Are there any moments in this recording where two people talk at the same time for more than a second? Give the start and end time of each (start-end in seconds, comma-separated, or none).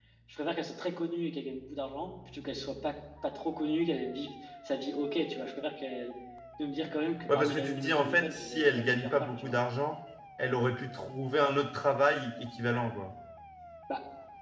7.3-9.5